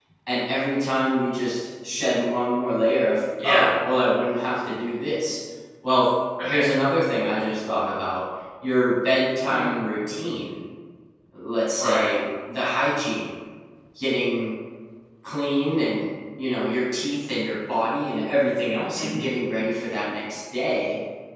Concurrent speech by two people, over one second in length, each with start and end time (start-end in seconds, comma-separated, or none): none